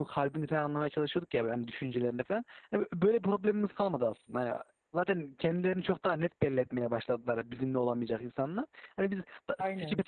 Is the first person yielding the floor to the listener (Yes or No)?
No